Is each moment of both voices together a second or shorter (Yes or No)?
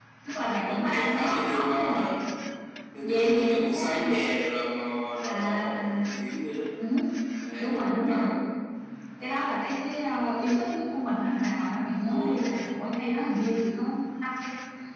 No